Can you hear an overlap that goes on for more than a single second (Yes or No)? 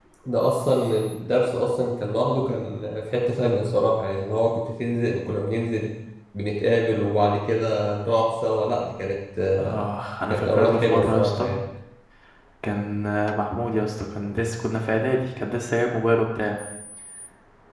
Yes